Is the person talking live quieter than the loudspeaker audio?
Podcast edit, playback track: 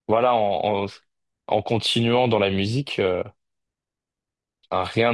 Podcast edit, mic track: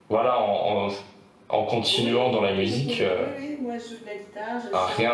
Yes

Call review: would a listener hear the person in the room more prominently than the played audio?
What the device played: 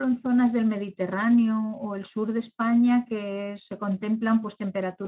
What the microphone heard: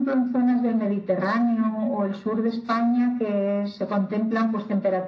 No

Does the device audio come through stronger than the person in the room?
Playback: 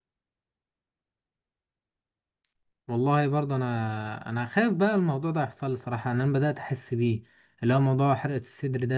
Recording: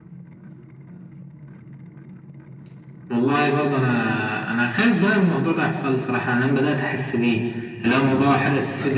Yes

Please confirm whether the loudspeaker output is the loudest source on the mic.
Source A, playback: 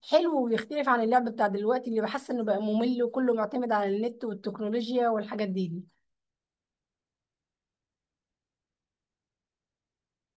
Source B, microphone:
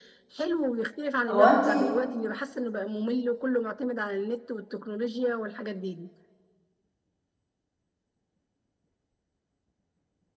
No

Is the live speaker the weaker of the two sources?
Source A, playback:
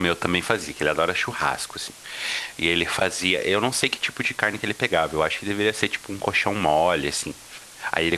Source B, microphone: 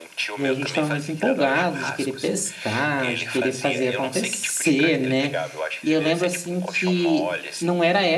No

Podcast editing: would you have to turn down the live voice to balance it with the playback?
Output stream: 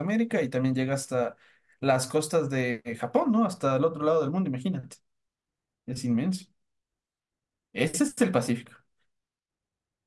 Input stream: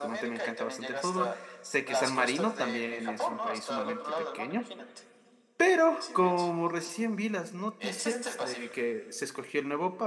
Yes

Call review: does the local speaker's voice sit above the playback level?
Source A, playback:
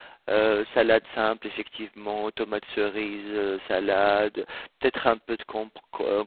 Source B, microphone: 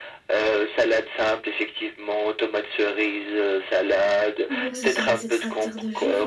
No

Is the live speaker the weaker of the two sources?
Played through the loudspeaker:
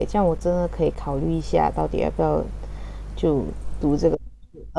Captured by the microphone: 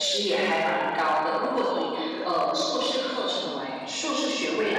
No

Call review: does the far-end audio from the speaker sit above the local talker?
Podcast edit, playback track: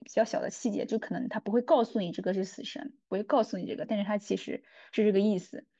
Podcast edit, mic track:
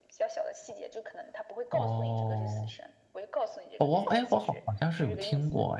No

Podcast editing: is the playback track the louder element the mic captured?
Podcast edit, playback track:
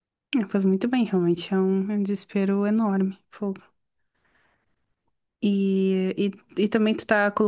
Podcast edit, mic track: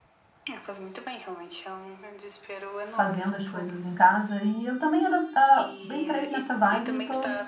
No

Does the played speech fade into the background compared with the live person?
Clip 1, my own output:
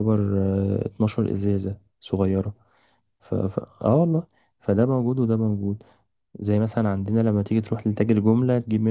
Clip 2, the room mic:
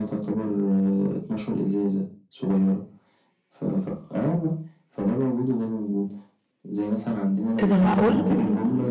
Yes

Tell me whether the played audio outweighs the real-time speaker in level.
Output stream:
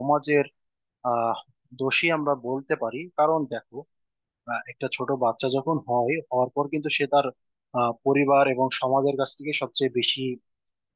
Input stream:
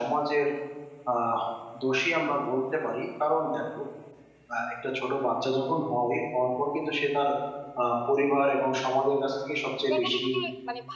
Yes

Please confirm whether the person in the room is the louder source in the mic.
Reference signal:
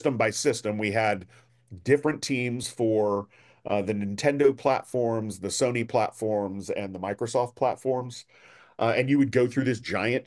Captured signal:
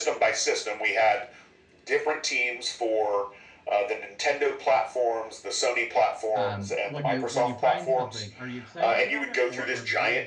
No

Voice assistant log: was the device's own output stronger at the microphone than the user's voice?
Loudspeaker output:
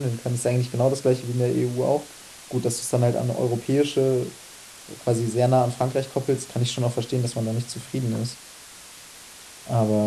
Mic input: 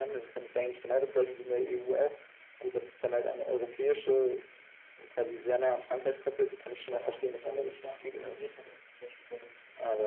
Yes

